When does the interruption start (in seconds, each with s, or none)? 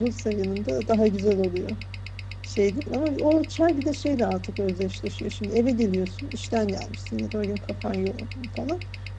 none